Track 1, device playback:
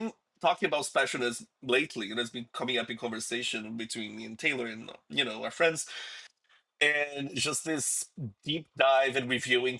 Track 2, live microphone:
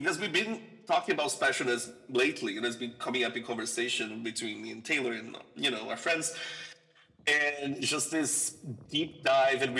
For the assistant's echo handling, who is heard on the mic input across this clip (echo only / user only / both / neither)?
echo only